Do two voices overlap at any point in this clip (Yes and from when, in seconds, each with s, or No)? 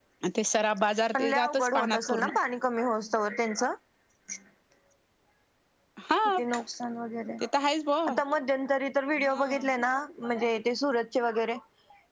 Yes, from 1.1 s